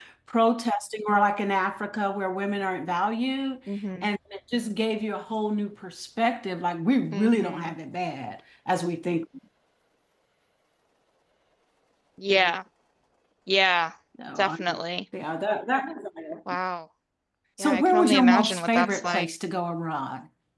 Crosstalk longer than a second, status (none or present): present